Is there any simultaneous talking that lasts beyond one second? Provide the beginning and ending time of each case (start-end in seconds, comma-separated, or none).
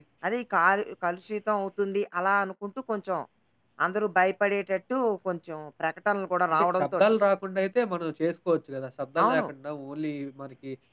none